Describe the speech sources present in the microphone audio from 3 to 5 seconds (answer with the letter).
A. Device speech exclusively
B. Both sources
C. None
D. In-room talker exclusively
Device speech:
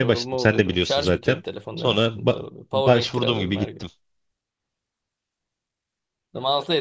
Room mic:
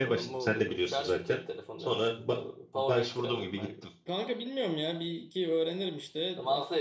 B